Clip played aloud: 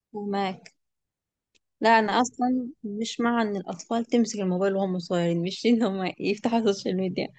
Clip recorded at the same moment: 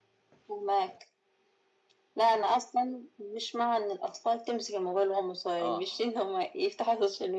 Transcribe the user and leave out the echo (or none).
اه